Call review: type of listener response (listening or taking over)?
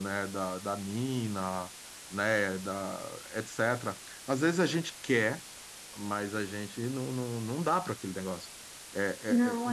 listening